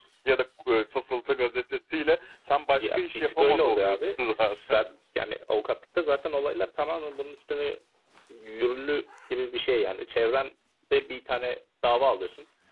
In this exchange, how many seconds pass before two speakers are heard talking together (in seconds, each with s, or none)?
2.8 s